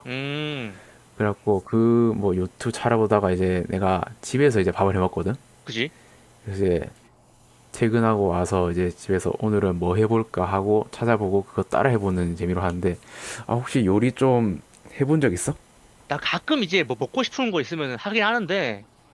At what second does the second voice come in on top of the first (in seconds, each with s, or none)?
none